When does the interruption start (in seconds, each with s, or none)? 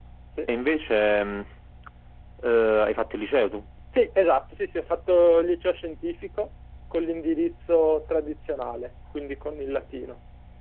none